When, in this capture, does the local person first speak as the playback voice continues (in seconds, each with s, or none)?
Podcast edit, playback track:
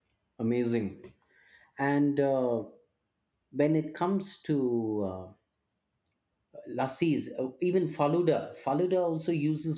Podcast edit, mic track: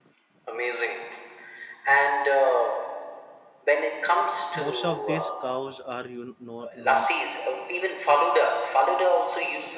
4.6 s